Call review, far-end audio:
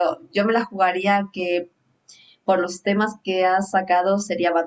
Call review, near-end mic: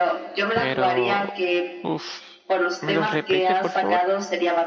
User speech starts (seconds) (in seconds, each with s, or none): 0.5 s